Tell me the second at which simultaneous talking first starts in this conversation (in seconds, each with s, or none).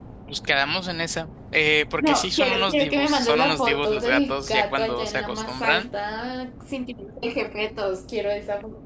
2.0 s